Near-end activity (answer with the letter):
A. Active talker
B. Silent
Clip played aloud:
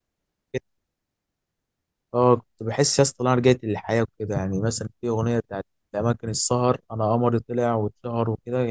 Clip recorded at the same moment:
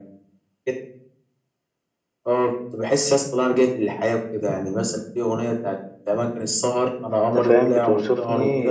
A